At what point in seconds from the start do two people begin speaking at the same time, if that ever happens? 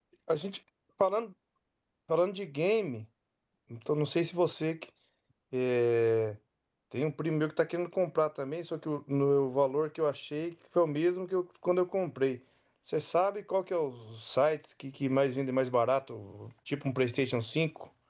none

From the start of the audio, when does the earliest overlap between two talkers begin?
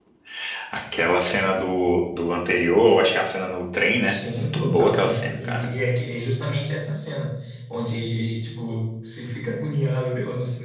4.0 s

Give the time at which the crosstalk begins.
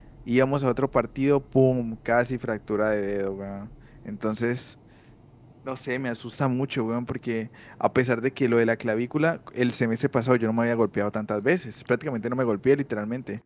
none

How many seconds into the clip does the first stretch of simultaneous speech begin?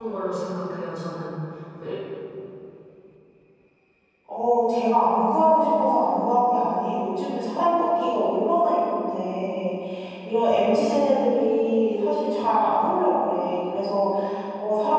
none

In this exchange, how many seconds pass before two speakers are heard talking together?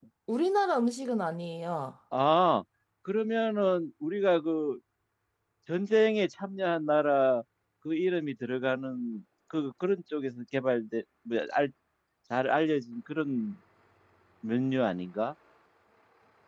none

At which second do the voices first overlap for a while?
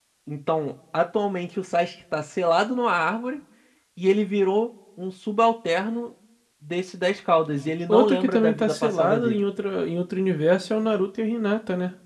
7.9 s

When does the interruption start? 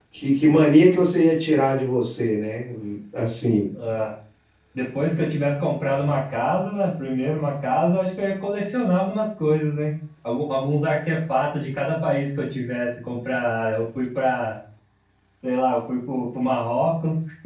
none

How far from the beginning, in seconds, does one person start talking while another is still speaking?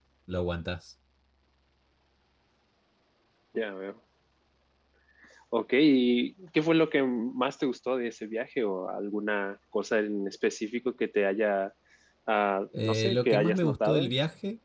12.8 s

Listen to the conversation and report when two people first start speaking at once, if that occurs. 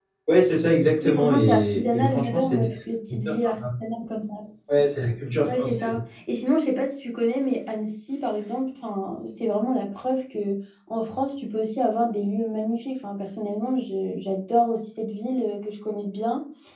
1.0 s

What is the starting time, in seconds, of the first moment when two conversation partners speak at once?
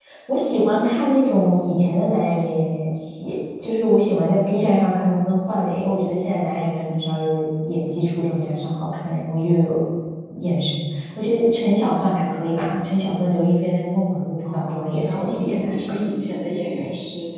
14.4 s

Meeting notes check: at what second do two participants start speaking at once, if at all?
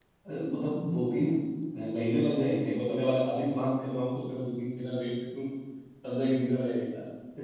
none

